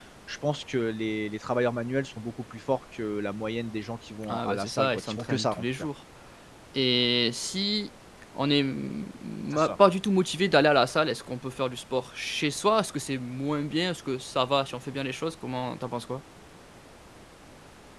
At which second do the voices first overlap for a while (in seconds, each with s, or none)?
4.3 s